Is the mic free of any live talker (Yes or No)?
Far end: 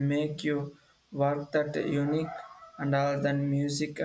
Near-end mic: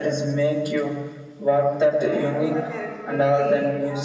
No